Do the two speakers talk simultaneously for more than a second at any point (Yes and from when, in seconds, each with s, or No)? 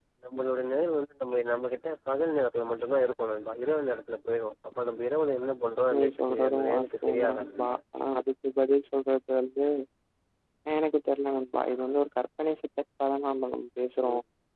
Yes, from 5.9 s